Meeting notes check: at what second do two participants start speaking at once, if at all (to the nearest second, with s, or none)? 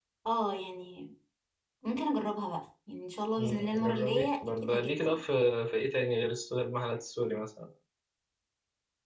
3 s